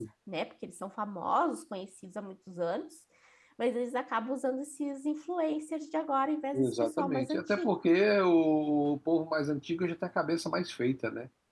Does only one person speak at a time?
No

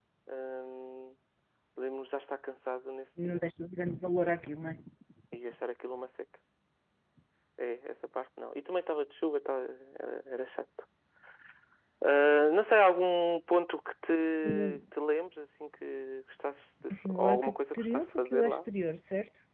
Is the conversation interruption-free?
No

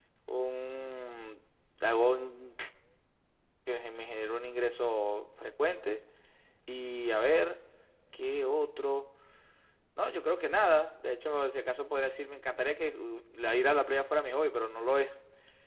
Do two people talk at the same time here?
No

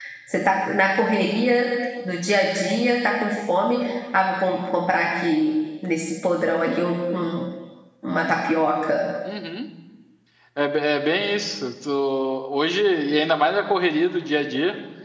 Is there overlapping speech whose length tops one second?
No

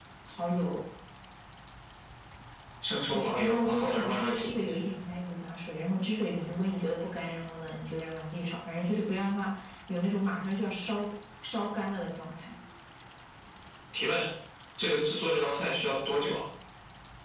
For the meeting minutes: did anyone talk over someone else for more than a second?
Yes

